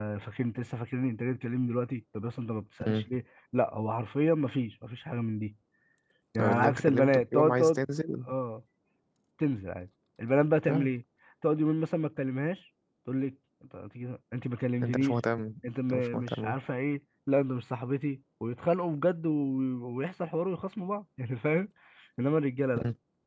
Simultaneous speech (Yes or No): Yes